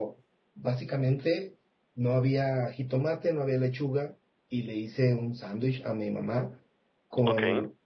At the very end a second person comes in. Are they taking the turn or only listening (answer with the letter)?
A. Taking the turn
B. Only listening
B